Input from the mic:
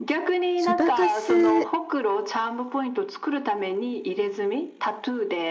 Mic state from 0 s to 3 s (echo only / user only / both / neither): both